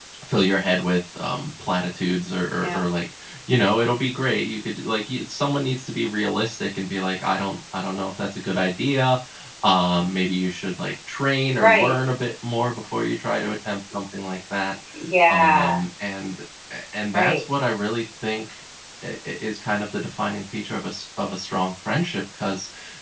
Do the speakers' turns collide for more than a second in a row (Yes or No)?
No